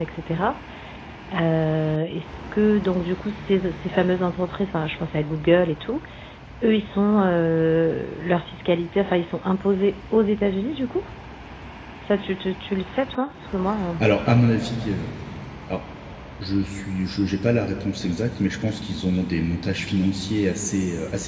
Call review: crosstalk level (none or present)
none